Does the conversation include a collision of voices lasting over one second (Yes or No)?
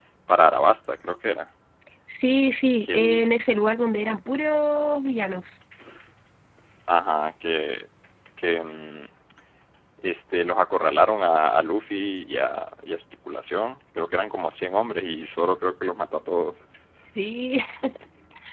No